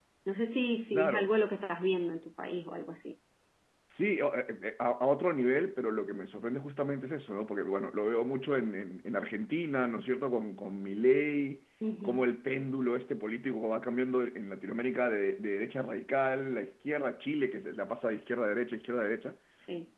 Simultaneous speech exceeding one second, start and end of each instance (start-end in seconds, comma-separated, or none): none